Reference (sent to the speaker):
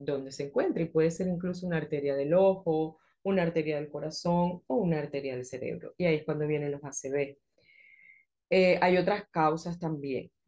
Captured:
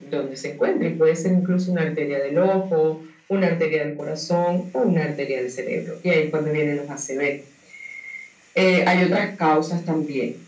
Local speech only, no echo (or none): none